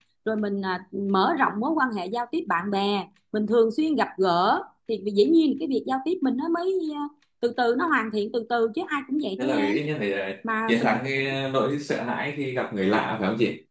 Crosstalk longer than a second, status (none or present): none